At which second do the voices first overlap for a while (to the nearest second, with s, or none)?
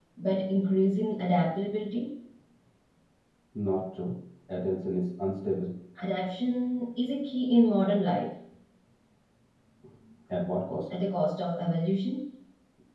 none